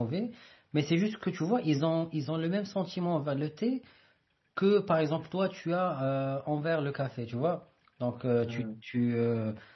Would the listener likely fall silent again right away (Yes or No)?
Yes